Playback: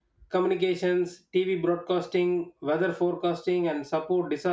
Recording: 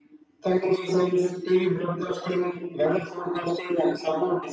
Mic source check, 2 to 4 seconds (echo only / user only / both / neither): echo only